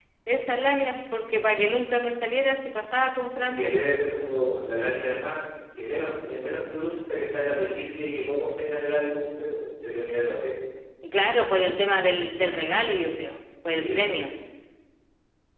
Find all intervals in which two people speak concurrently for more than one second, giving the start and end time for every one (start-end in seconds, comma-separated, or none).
none